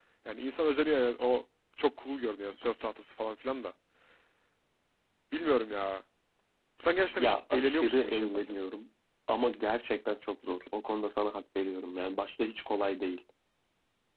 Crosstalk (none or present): present